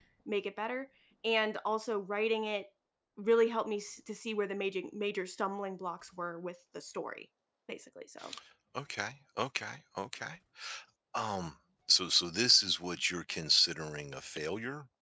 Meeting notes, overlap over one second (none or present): none